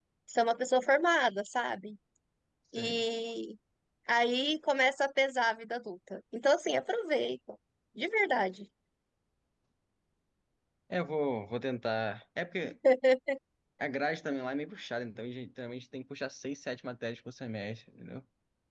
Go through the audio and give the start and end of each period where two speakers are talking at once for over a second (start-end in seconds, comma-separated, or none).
none